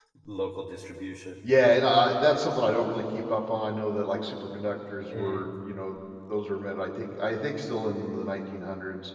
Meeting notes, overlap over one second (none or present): none